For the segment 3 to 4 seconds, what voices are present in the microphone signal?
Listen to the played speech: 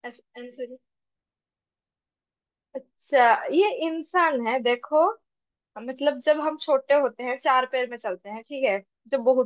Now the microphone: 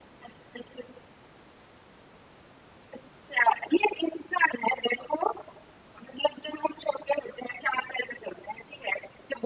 echo only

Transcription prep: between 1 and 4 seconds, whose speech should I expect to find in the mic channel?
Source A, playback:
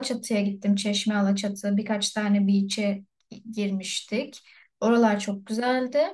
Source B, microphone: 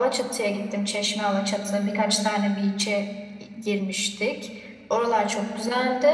echo only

